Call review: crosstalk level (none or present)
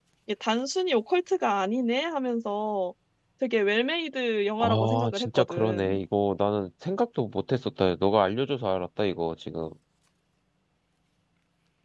present